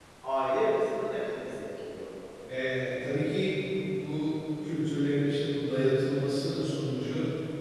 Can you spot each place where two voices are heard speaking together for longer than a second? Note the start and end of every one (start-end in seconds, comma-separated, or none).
none